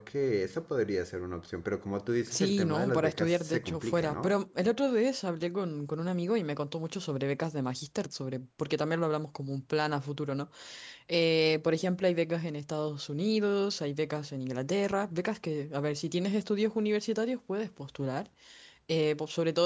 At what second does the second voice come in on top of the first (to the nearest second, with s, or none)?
2 s